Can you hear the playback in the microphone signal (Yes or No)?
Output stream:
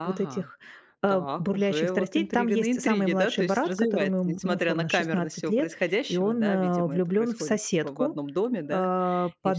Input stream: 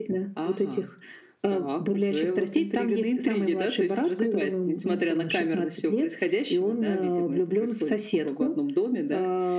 Yes